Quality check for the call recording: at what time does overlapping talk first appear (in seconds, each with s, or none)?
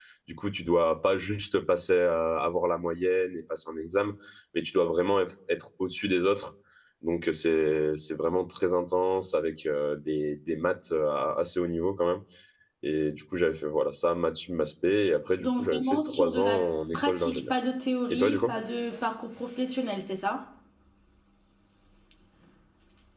15.4 s